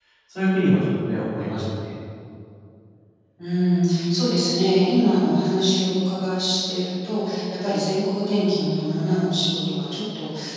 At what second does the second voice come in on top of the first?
none

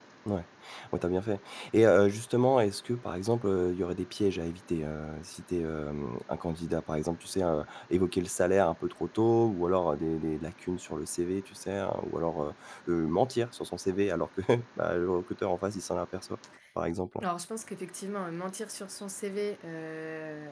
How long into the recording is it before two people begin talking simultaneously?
none

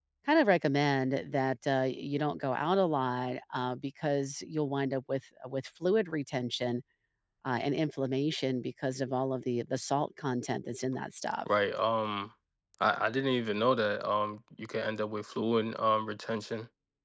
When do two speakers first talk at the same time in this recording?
none

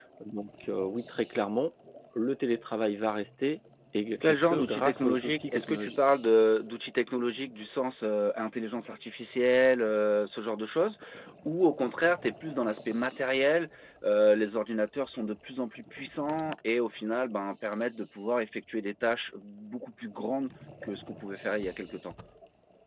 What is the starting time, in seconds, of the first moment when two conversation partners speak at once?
4.2 s

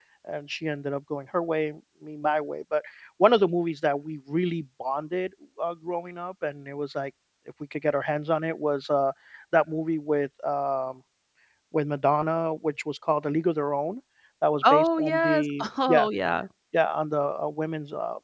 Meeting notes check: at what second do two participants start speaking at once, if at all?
14.7 s

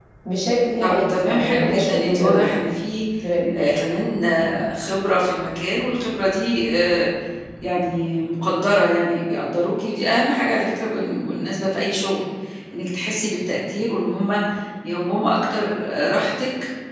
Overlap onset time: 0.8 s

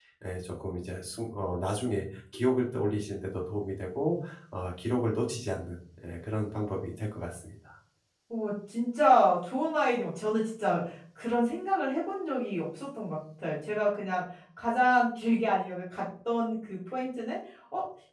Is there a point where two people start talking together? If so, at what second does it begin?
none

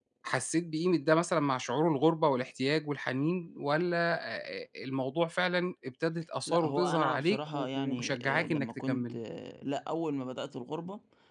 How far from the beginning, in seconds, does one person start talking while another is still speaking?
6.5 s

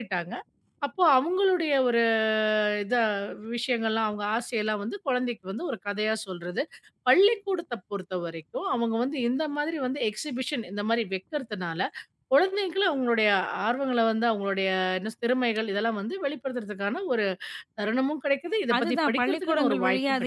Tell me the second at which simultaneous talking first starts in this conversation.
18.7 s

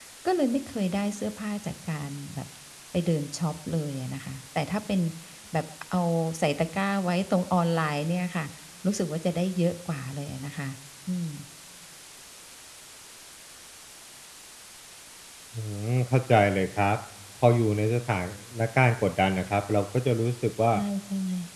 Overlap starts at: none

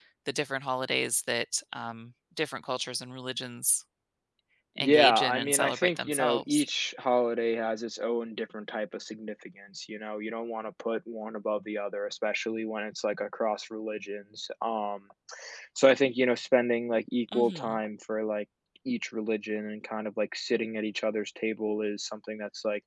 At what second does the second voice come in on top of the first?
4.8 s

